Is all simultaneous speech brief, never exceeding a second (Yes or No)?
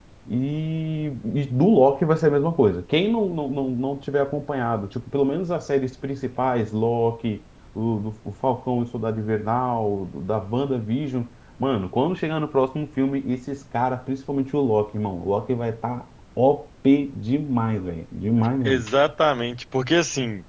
Yes